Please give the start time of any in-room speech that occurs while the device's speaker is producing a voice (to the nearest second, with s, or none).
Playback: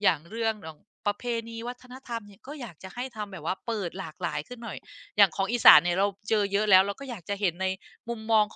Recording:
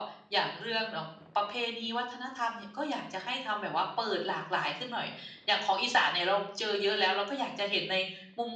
none